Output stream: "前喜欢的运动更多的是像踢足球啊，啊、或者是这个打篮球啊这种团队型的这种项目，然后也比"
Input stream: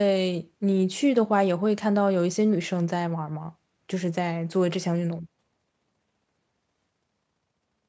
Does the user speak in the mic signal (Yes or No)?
Yes